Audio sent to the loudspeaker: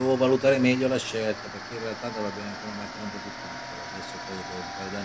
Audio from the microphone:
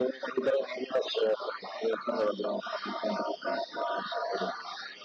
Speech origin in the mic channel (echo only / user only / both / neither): echo only